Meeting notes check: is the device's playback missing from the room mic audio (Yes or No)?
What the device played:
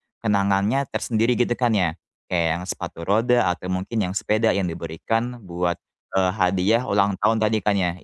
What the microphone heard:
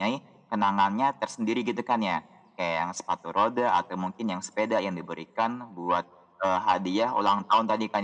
No